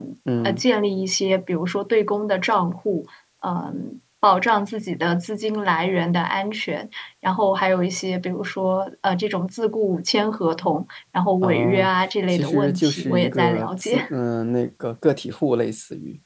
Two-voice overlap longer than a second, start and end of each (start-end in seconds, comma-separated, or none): 12.3-14.1